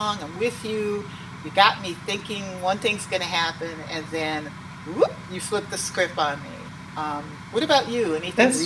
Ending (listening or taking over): taking over